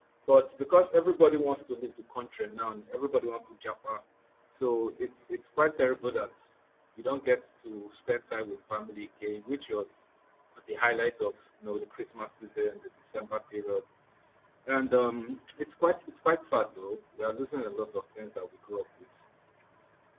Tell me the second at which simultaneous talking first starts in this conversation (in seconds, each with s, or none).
none